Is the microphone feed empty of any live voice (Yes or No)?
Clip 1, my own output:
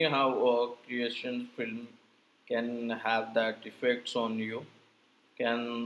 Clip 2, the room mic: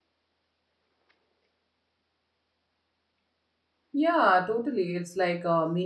No